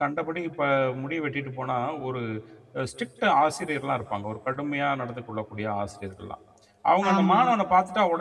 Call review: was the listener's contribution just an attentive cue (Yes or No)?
Yes